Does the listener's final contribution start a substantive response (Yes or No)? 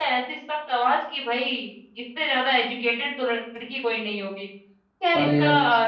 No